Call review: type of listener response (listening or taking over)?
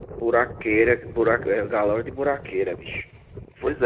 listening